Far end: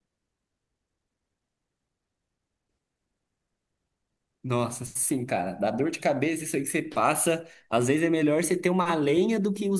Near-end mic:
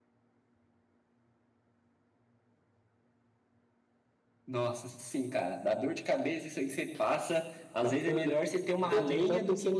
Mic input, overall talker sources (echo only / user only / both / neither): both